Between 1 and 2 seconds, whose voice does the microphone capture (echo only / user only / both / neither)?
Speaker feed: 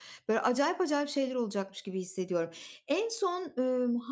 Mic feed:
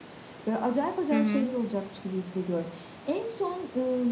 both